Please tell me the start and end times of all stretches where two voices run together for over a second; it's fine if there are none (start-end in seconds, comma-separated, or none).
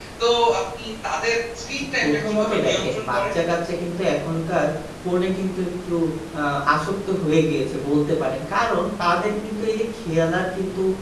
1.8-3.2